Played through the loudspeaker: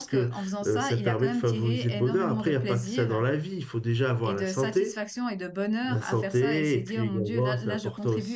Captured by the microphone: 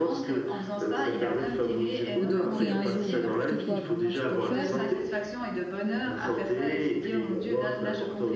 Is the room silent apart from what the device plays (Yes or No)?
No